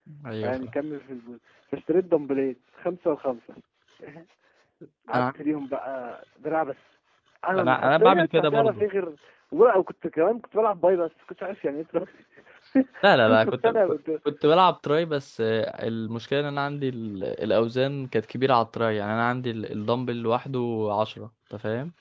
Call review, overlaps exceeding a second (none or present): present